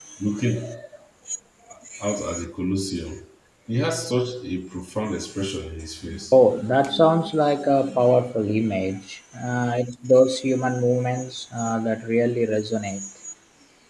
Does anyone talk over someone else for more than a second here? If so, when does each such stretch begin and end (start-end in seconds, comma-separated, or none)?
none